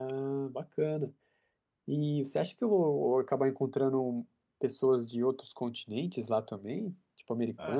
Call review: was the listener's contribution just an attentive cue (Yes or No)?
No